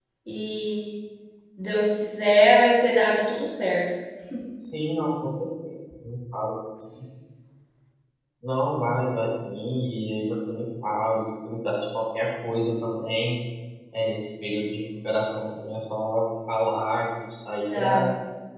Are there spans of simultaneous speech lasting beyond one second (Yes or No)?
No